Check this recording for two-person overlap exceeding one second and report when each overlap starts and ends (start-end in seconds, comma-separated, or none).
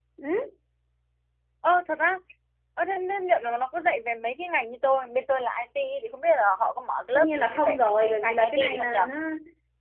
7.2-9.0